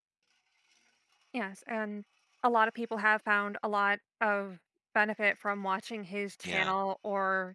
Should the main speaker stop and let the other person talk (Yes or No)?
No